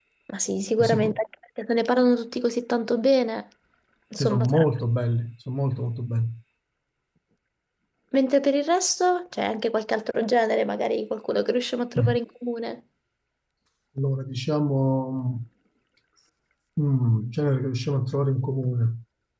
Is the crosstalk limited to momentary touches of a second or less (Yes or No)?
Yes